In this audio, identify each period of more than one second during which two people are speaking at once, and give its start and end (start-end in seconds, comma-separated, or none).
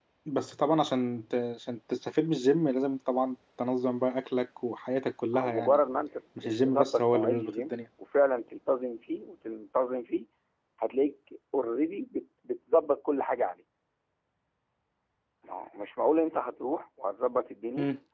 6.4-7.8